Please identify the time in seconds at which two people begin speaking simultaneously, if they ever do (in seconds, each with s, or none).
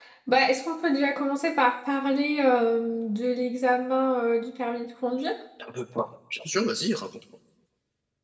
none